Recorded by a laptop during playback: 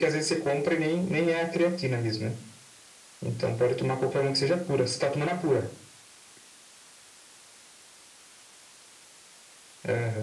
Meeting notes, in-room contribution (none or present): none